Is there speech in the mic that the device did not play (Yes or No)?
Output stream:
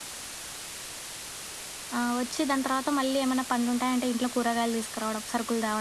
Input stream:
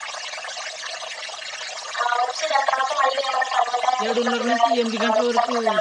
Yes